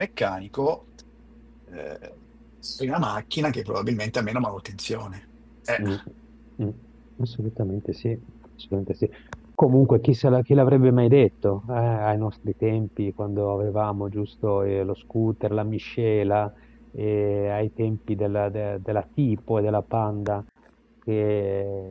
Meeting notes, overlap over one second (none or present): none